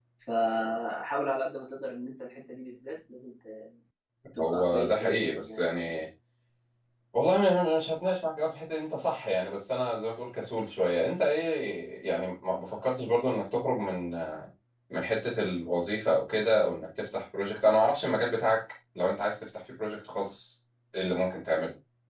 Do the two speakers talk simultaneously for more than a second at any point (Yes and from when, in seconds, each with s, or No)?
Yes, from 4.4 s